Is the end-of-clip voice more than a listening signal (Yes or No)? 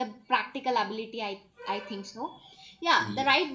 No